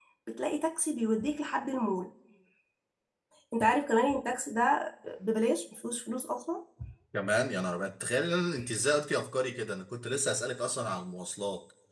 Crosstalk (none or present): none